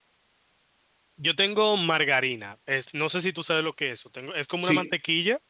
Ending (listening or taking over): listening